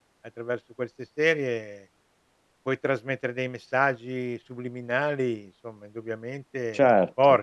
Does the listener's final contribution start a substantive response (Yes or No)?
Yes